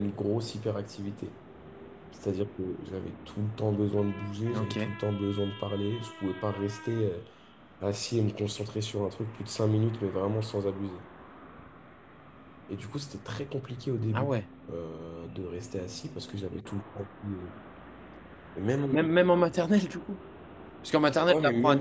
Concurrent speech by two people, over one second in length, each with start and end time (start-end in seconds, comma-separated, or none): none